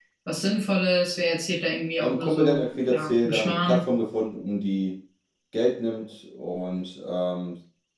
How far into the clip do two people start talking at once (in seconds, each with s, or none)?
2.0 s